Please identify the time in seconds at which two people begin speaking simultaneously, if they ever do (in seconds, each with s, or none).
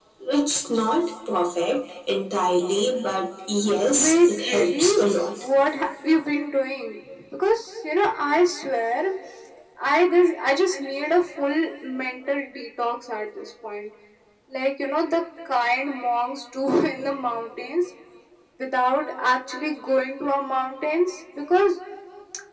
3.6 s